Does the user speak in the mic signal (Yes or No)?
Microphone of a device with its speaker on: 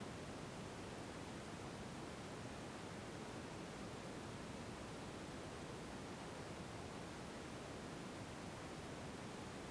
No